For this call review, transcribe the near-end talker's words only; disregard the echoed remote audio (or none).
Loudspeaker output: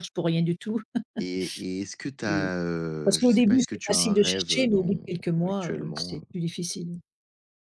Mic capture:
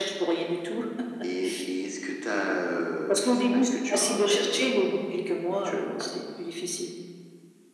none